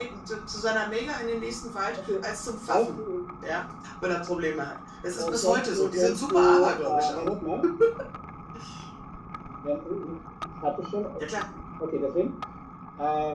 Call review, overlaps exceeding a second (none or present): present